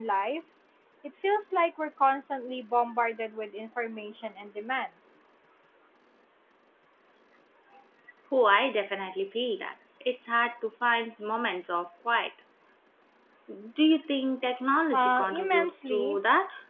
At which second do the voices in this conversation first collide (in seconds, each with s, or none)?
14.9 s